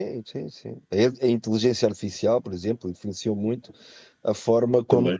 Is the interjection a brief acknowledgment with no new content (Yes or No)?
Yes